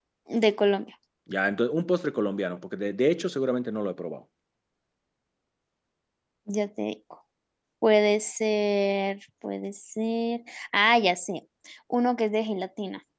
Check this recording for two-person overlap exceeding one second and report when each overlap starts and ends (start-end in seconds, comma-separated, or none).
none